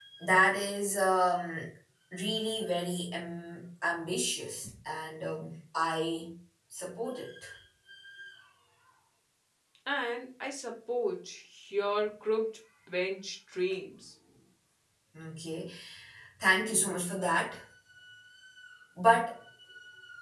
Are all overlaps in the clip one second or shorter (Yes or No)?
Yes